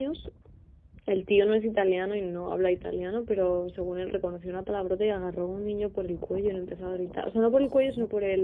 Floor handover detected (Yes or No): No